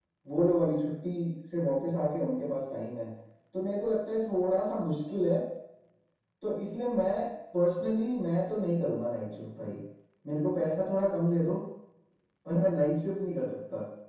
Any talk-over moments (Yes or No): No